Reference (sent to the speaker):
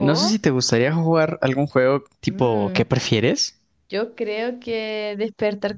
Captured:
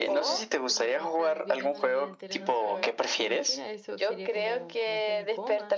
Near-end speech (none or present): present